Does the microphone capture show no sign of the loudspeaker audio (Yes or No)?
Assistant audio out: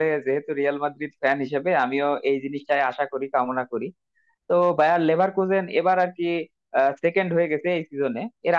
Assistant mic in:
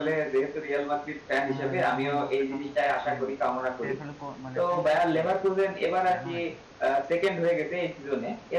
No